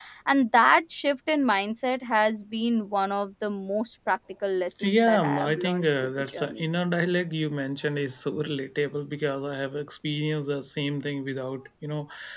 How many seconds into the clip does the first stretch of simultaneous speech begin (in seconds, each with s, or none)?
4.8 s